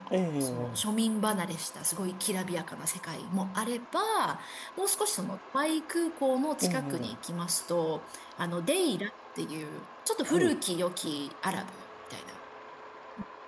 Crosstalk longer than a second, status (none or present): none